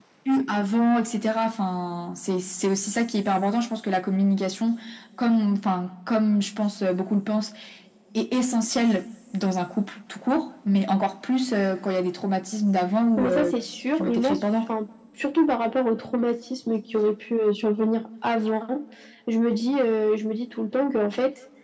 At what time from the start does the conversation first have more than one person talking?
13.2 s

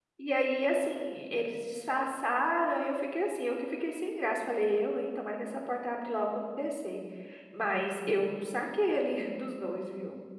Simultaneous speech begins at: none

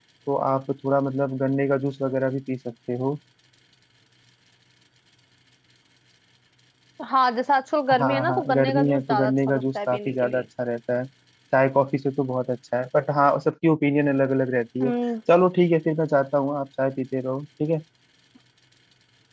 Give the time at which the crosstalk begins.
7.9 s

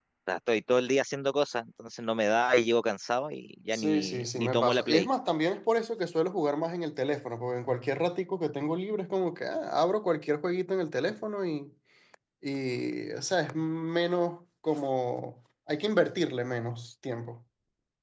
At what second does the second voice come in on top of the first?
3.7 s

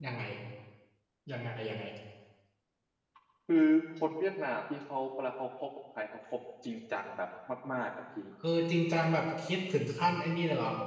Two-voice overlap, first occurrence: none

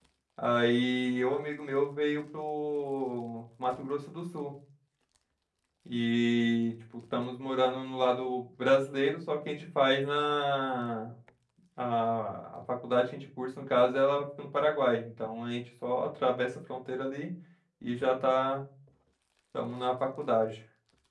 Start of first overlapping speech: none

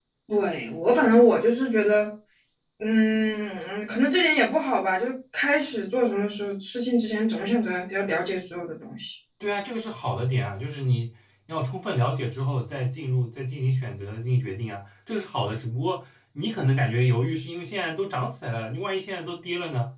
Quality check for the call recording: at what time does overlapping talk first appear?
none

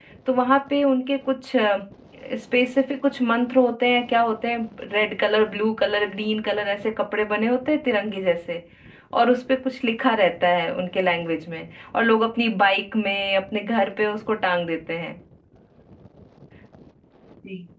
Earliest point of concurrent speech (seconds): none

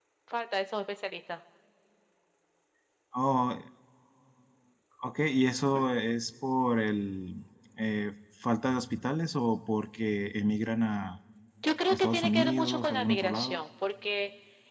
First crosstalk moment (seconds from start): 11.9 s

